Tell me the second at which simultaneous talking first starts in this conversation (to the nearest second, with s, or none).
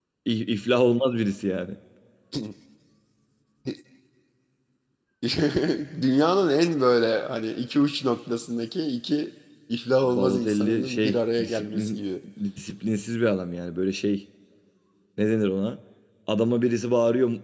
10 s